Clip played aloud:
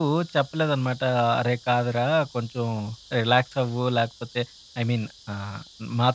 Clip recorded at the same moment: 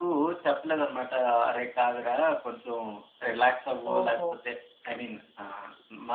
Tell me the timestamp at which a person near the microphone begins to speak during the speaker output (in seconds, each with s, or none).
3.9 s